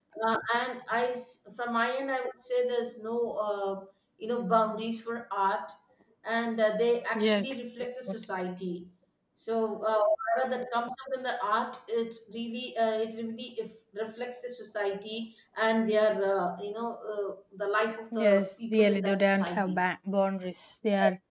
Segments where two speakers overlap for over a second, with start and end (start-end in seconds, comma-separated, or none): 18.1-19.8